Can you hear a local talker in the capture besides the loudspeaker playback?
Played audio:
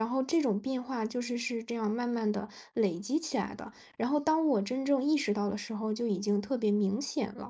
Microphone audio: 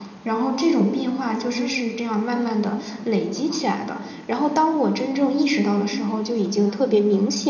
Yes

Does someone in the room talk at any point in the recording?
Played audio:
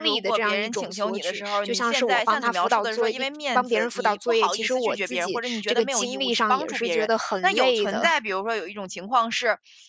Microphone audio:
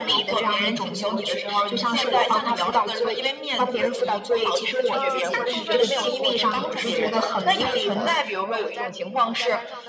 Yes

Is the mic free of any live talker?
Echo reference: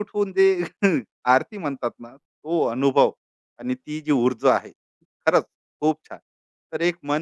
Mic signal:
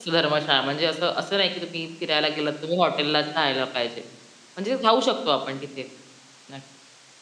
No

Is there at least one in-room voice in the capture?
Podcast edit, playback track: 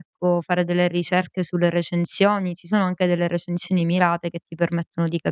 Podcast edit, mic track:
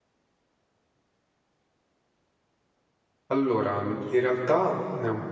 Yes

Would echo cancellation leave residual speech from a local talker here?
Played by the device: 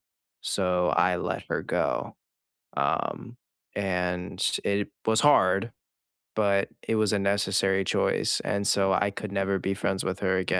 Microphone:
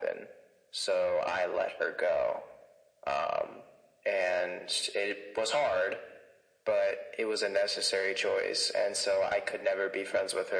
No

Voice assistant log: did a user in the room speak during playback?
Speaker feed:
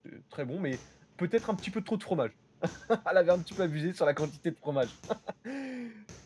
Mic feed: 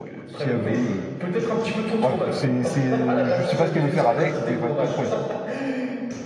Yes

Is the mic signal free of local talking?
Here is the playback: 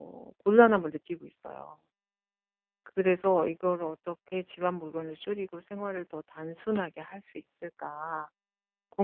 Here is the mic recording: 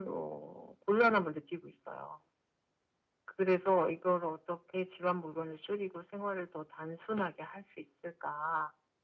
Yes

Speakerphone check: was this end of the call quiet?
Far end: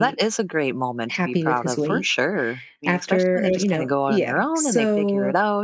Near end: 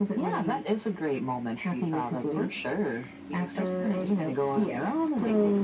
Yes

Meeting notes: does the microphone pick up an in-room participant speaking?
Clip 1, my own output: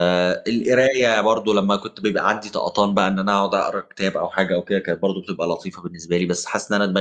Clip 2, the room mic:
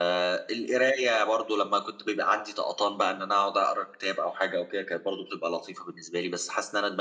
No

